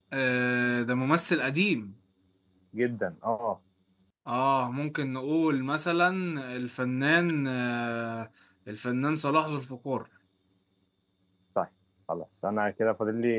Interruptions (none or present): none